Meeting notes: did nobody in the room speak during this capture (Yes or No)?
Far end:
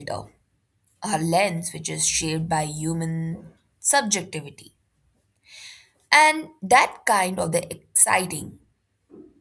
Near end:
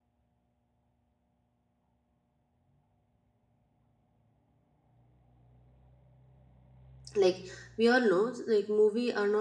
No